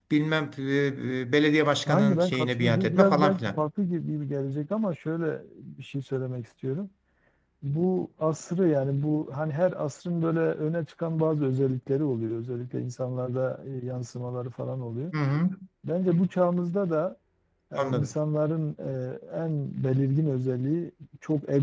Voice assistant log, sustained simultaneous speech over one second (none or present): present